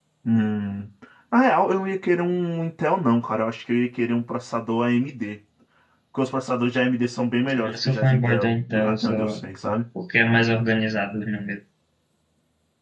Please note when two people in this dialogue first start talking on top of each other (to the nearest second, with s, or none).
8 s